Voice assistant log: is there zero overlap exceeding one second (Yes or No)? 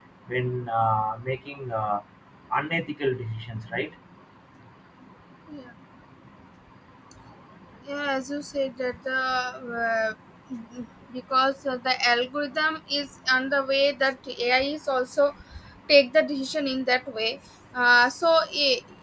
Yes